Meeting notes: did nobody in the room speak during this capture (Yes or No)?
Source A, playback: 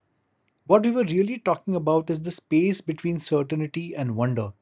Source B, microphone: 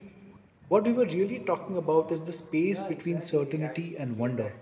No